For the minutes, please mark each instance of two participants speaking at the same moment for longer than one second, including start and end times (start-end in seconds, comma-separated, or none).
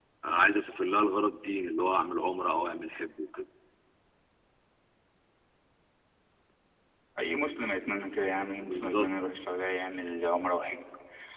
none